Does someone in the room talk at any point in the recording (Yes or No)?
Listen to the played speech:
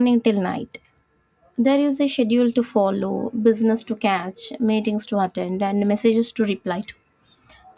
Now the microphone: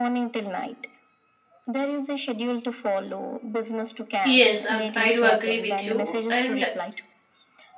Yes